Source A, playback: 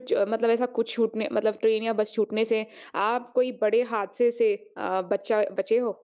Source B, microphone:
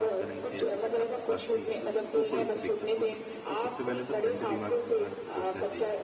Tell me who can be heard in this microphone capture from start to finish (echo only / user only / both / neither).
both